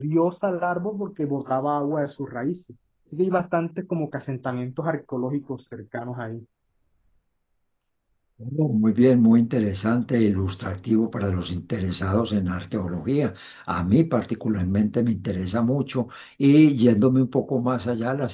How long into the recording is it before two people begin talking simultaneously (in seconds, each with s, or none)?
none